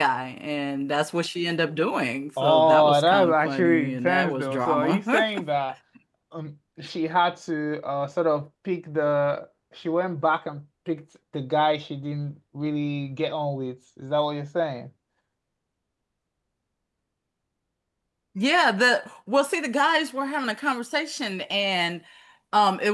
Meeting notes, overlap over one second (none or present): present